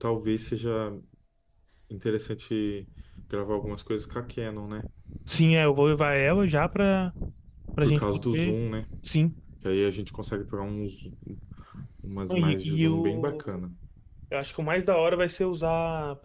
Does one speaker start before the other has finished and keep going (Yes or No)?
Yes